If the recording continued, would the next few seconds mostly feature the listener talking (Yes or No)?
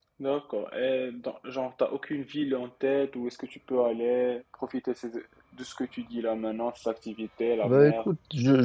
Yes